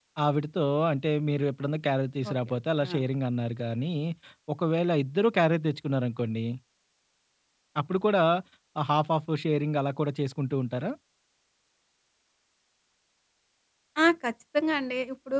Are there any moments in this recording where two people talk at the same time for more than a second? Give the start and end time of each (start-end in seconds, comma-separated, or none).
none